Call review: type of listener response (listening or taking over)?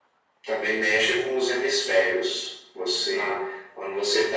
listening